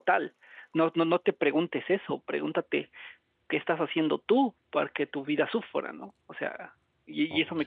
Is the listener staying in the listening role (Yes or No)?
Yes